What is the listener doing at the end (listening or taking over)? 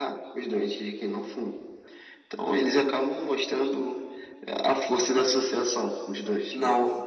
taking over